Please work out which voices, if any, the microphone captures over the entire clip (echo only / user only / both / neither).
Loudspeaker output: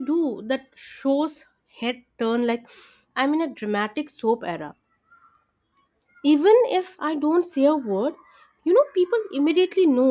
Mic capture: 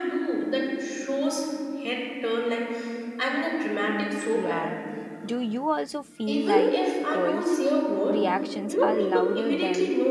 both